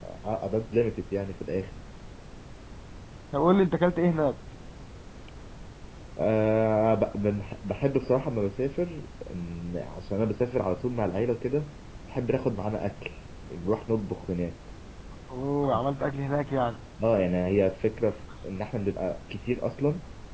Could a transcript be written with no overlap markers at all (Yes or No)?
Yes